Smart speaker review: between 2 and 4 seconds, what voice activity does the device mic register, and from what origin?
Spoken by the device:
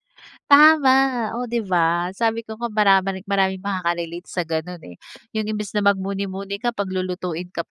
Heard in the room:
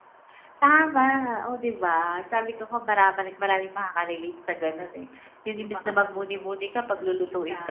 echo only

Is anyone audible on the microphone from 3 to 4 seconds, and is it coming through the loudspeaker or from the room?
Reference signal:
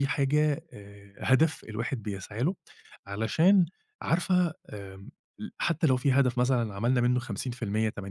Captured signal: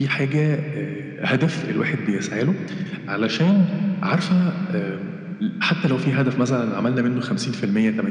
echo only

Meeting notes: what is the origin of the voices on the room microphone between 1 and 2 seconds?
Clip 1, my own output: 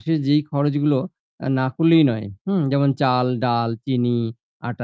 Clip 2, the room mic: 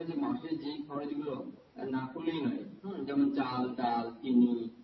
echo only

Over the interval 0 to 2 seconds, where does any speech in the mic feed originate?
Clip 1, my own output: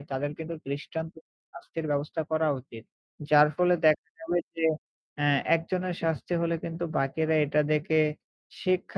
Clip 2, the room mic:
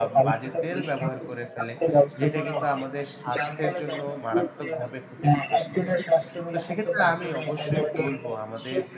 both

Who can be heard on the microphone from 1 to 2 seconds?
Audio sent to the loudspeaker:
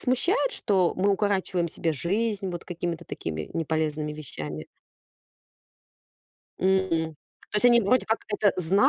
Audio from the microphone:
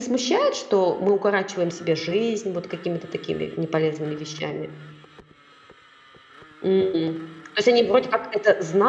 echo only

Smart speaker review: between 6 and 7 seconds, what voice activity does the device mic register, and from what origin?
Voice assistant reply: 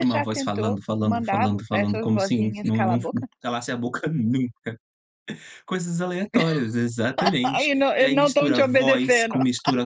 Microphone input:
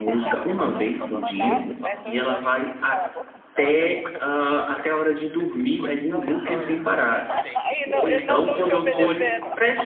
both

